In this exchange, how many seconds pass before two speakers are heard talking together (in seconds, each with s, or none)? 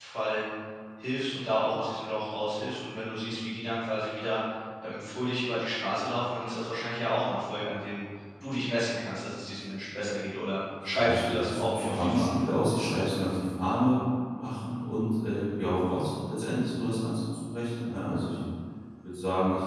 10.8 s